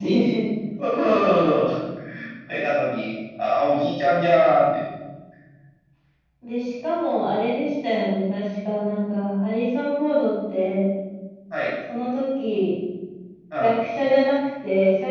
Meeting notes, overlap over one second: none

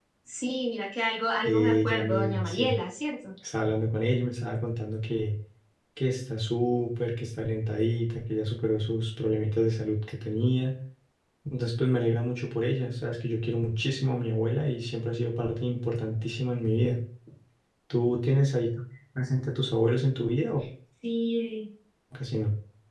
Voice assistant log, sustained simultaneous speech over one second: present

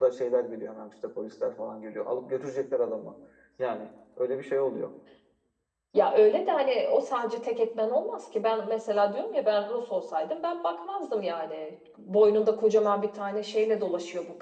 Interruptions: none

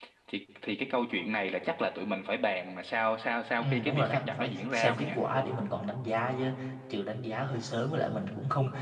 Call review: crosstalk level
present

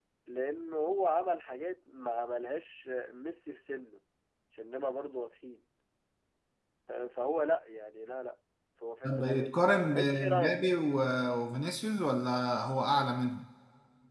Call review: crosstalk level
present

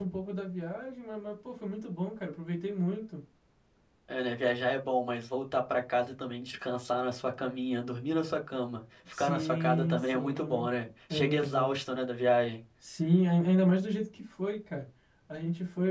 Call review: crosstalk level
present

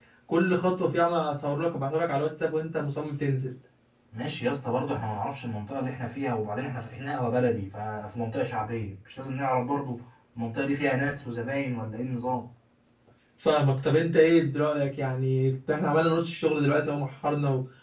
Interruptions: none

